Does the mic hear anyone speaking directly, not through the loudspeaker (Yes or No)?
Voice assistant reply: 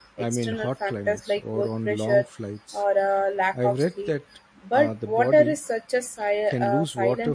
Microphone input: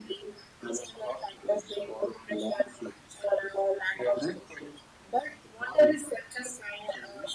No